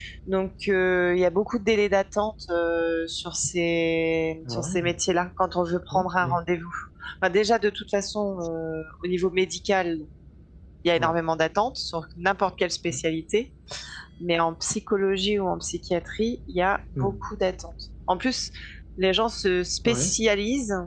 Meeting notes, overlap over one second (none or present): none